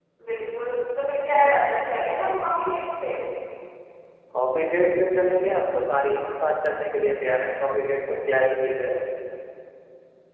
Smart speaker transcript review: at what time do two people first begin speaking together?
none

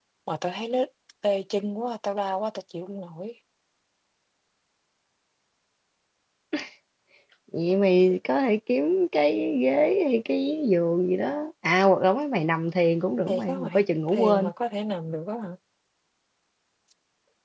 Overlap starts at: 13 s

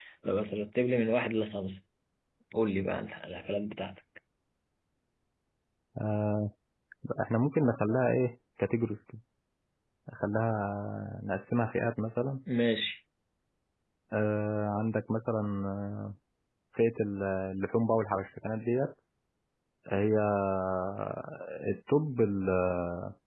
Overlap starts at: none

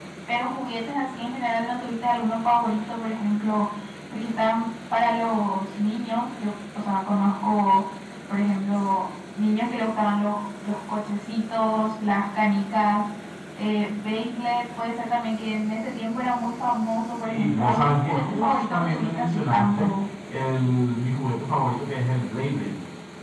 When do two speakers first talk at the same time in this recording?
17 s

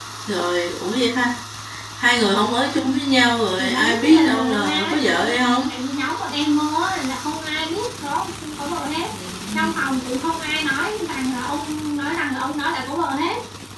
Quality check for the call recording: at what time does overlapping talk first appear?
4 s

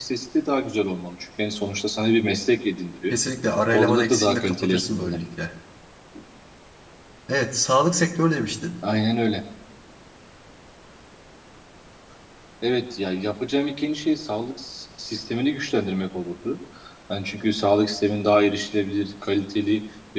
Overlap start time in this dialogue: 4 s

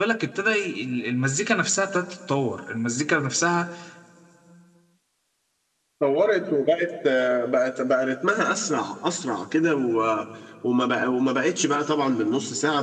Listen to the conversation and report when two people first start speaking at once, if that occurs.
none

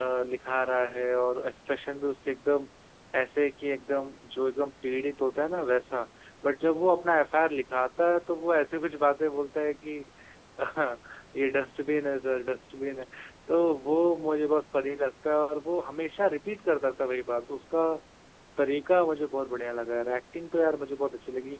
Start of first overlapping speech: none

